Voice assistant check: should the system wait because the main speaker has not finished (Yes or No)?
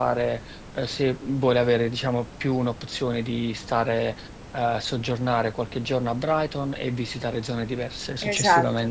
No